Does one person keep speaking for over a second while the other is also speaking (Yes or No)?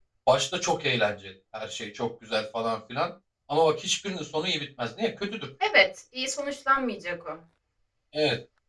No